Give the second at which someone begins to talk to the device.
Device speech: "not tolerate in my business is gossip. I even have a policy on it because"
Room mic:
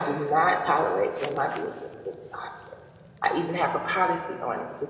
none

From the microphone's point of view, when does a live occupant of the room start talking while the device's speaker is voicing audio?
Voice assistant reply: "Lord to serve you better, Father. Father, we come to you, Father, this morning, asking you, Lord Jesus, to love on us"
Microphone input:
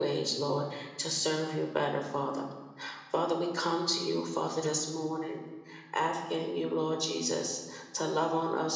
none

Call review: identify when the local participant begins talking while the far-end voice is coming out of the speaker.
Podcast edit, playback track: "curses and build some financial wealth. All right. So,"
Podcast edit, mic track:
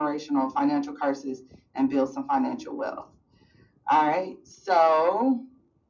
none

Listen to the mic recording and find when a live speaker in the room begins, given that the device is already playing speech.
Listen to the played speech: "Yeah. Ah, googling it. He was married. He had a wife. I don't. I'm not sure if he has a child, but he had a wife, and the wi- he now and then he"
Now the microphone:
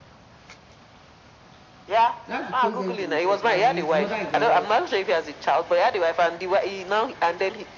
2 s

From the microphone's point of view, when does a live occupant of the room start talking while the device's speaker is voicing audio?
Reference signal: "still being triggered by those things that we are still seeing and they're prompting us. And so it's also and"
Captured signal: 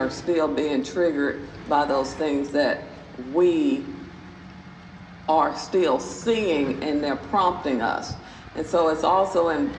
none

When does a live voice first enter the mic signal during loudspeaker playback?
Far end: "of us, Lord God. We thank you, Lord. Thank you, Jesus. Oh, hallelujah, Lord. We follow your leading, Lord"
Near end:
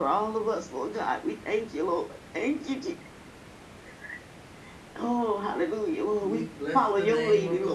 6 s

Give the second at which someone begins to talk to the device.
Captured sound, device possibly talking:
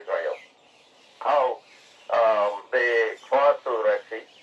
none

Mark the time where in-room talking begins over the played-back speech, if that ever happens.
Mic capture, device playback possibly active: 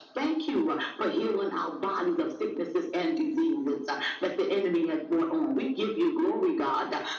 none

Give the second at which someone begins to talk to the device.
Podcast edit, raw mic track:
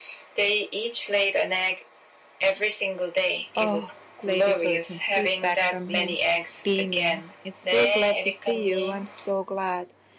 4 s

